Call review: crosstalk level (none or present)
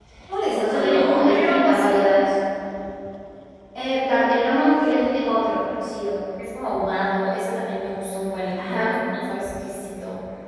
present